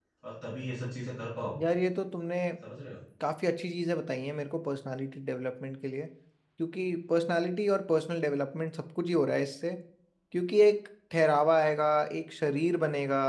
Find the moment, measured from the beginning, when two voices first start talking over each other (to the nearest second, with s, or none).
none